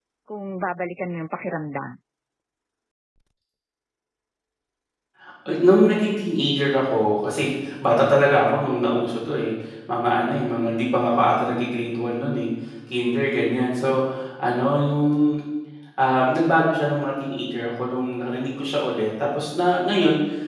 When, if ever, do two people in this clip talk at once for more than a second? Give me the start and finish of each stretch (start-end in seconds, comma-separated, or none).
none